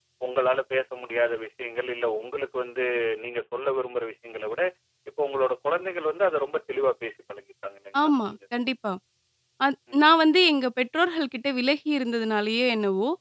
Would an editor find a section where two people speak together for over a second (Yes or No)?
No